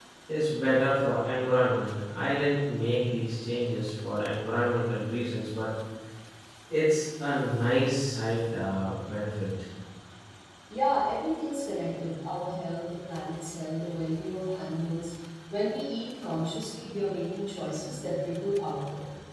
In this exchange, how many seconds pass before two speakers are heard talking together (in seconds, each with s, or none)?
none